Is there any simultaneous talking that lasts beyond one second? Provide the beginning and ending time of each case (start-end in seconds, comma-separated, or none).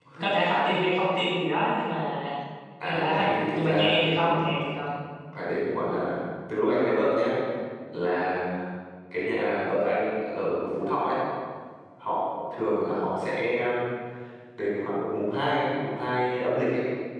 3.0-4.3